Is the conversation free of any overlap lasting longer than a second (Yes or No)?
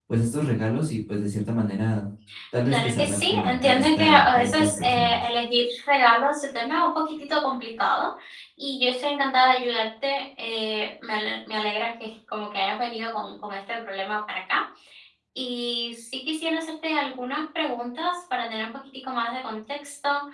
No